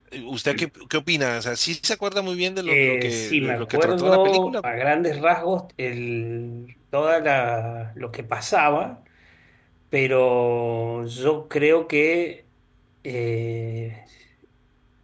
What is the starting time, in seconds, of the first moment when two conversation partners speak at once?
2.7 s

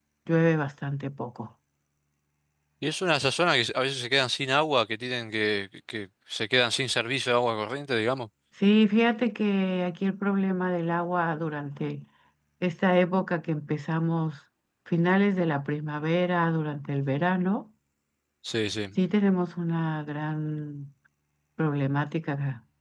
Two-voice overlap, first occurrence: none

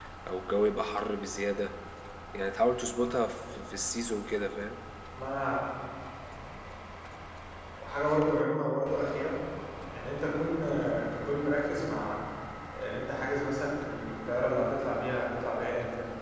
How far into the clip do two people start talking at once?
none

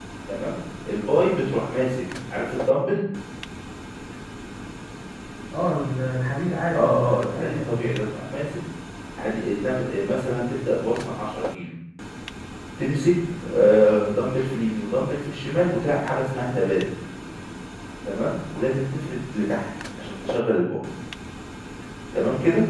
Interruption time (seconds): 6.7 s

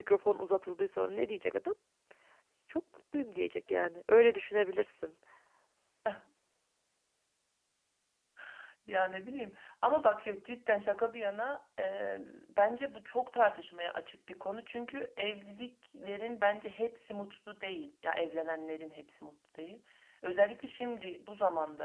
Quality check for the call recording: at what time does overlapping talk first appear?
none

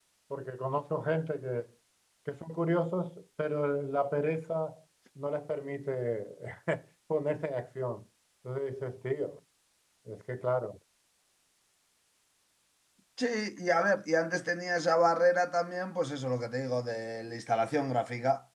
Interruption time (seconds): none

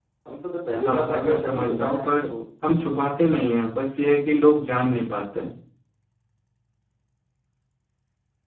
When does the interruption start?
0.8 s

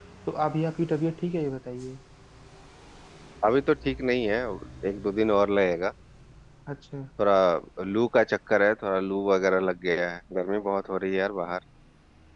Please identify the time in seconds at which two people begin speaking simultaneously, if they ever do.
none

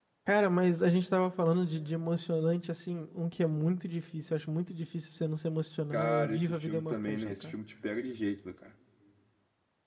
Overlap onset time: 5.9 s

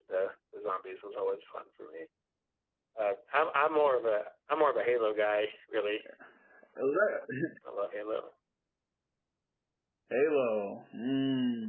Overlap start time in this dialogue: none

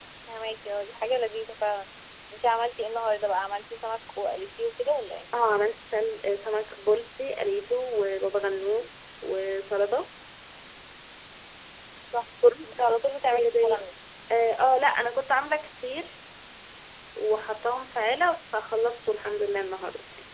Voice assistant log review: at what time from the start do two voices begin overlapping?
12.6 s

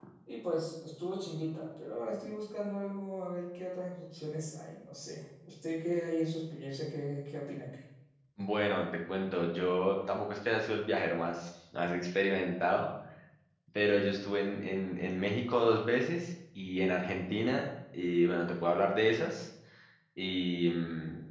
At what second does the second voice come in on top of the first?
none

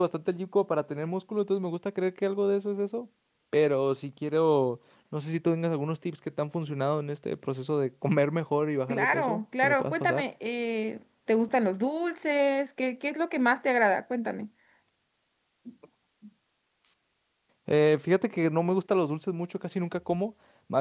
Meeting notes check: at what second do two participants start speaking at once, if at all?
8.9 s

